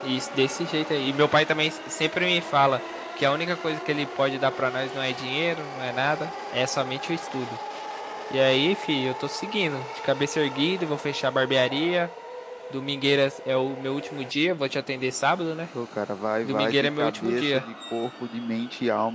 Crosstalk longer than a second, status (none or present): present